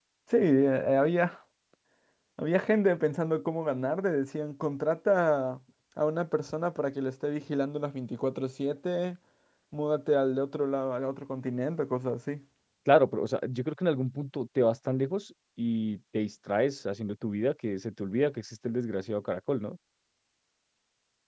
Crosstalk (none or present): none